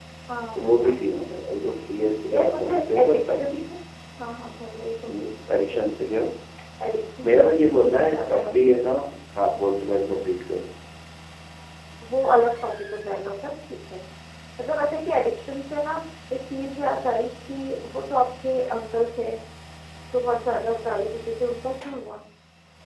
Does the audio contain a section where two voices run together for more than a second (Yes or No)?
Yes